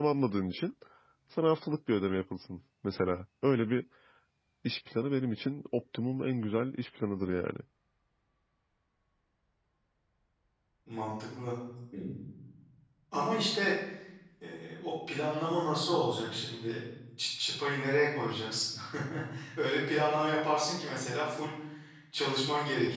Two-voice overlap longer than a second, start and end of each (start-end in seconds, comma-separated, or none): none